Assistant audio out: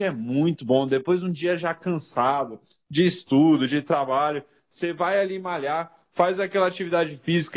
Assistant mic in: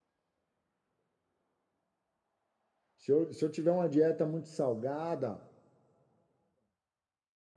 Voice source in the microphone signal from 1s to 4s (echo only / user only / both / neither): user only